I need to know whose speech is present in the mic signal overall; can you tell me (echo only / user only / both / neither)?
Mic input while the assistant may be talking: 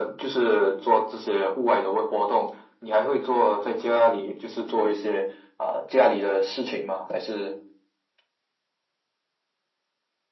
echo only